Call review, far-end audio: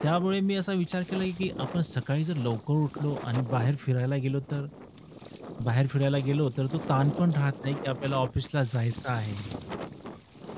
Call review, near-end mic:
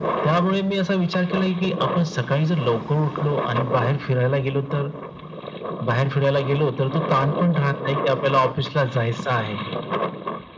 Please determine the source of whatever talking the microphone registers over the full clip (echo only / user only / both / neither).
echo only